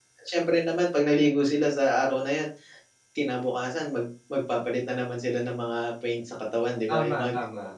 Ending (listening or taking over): taking over